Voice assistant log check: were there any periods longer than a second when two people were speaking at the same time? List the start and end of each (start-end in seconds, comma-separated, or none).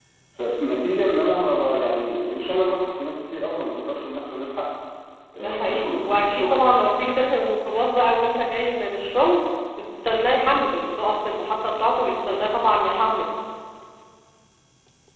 5.4-6.7